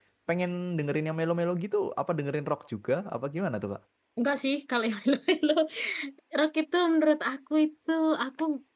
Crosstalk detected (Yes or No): No